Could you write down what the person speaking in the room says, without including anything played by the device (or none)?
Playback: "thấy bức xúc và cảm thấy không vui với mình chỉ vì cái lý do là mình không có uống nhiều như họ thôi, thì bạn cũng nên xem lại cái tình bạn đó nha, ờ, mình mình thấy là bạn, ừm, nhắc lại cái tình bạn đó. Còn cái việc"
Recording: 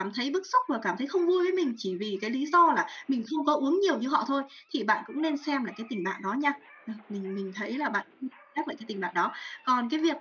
none